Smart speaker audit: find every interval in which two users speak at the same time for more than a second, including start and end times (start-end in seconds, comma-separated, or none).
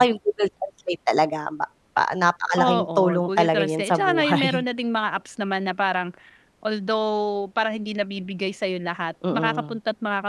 2.5-4.6